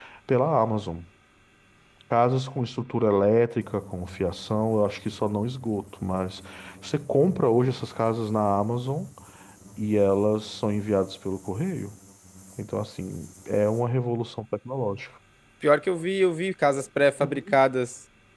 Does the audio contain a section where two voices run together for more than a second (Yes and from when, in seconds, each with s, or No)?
No